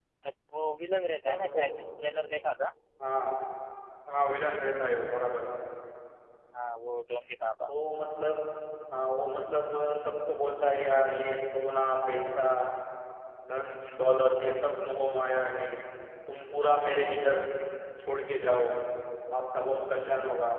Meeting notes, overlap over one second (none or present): none